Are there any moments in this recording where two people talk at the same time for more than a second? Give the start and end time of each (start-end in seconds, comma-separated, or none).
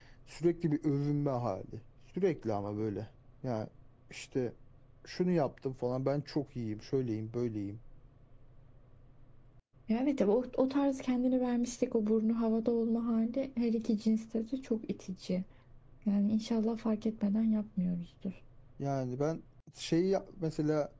none